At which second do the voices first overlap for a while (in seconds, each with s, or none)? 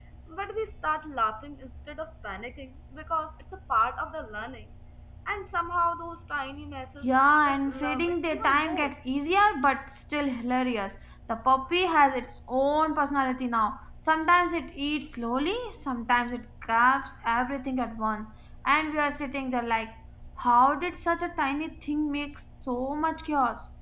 7.0 s